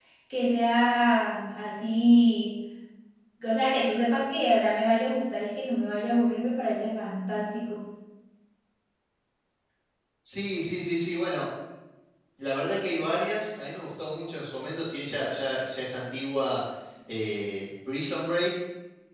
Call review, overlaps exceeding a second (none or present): none